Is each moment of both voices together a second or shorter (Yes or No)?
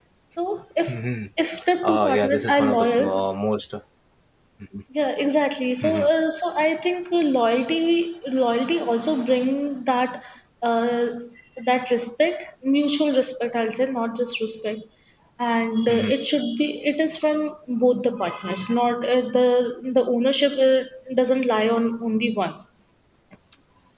No